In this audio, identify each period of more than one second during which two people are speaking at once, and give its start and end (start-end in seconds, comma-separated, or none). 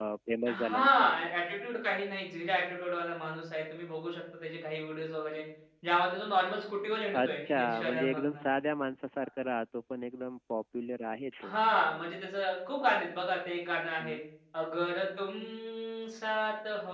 7.1-8.4